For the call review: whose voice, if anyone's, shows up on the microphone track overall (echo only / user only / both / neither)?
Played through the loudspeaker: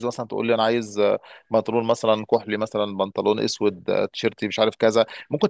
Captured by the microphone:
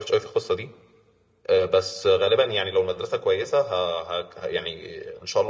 user only